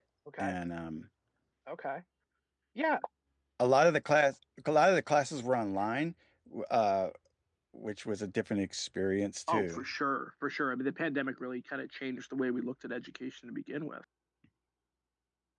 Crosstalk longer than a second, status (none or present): none